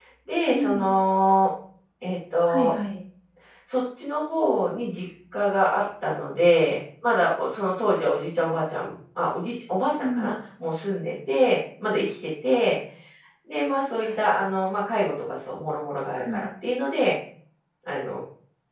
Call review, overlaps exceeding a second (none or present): none